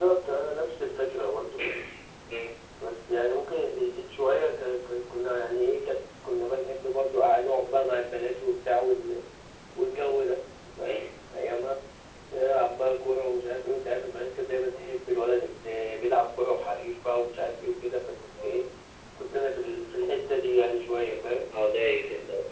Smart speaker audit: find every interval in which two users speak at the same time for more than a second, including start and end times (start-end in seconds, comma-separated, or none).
none